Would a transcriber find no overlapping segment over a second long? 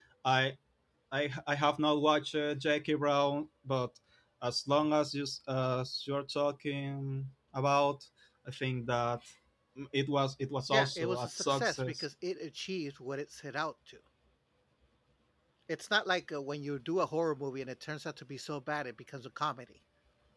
No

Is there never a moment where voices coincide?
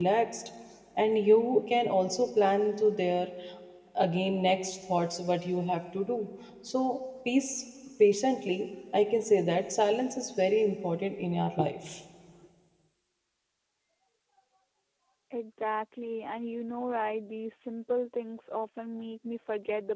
Yes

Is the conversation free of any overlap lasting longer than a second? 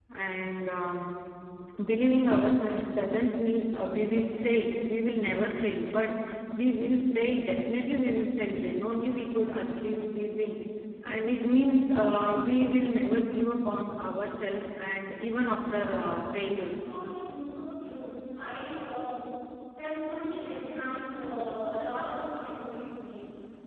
Yes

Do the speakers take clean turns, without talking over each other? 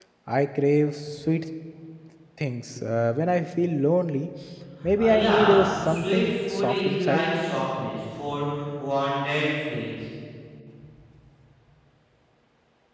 No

